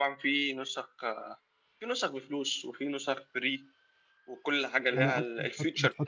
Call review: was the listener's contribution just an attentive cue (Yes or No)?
No